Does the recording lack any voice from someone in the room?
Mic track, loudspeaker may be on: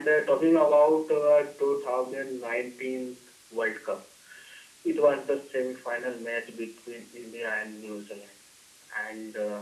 Yes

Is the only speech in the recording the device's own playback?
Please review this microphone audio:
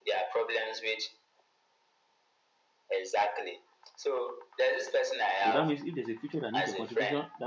No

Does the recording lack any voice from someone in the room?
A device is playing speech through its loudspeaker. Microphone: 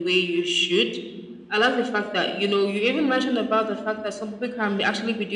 Yes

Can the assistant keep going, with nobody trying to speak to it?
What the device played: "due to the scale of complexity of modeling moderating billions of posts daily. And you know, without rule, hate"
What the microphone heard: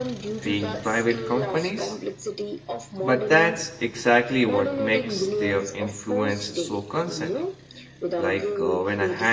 No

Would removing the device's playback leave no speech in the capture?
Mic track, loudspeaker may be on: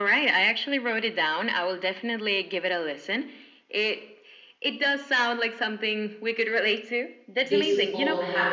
No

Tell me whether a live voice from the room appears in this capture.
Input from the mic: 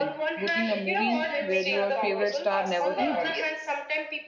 Yes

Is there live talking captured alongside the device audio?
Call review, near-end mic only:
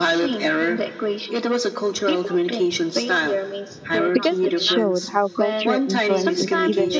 Yes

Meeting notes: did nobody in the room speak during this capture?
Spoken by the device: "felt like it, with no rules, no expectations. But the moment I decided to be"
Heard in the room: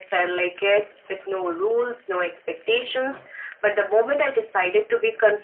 Yes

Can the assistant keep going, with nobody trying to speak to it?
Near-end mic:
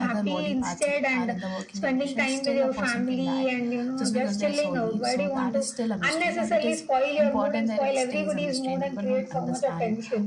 No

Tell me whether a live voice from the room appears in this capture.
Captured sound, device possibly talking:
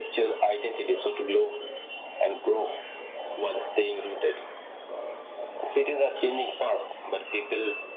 No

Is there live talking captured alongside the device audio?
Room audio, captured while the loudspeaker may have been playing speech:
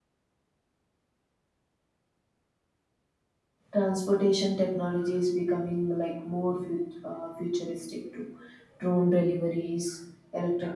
Yes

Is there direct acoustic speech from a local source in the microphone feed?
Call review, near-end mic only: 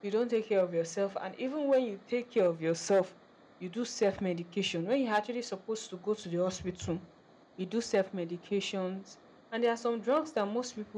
No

